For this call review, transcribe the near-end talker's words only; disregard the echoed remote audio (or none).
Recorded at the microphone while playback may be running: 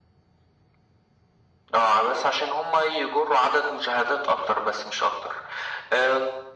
none